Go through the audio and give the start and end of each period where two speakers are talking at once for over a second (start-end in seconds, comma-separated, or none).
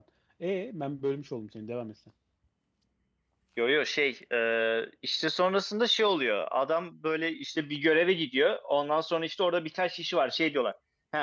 none